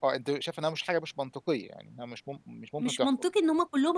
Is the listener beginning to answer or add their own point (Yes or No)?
Yes